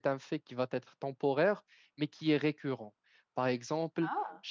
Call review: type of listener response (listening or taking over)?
listening